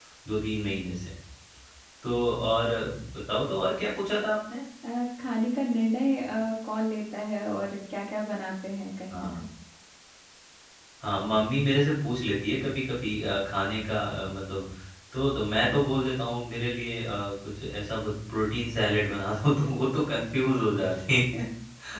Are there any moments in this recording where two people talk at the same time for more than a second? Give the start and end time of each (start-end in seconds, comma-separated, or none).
none